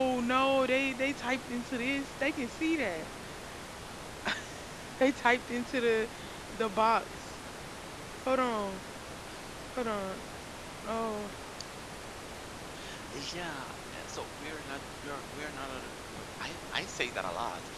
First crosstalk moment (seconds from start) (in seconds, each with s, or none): none